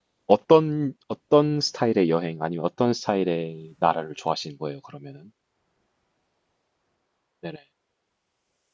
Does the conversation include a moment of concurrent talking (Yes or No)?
No